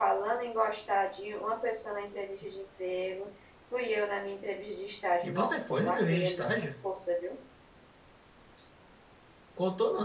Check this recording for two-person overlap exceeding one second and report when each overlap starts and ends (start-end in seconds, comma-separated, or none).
5.2-6.7